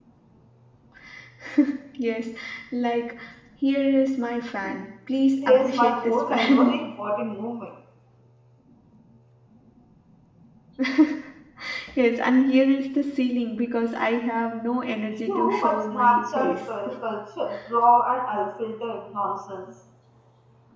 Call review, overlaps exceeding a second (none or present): present